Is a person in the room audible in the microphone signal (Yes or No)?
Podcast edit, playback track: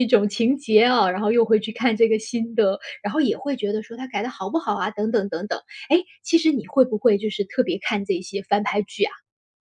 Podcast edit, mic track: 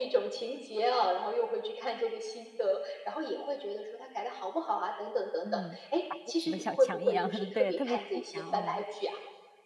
Yes